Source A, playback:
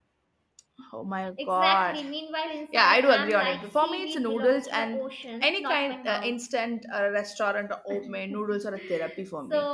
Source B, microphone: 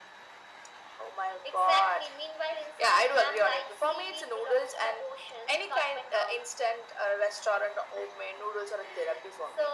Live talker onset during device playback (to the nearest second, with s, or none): none